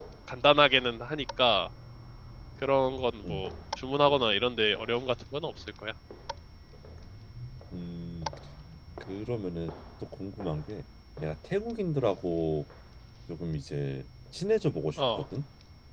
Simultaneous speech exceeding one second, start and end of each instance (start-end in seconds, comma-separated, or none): none